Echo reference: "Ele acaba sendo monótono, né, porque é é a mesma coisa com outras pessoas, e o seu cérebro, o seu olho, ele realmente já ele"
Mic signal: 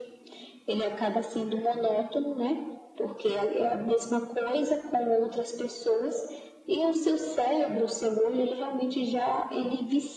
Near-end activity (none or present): none